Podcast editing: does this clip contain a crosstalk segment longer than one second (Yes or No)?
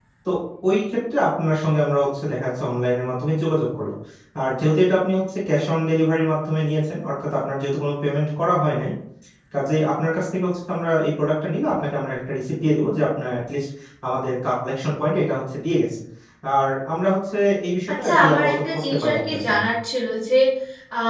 Yes